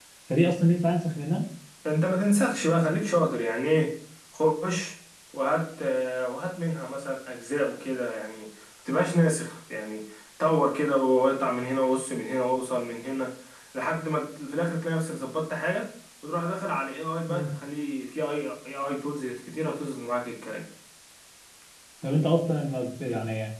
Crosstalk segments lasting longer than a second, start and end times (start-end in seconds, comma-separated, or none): none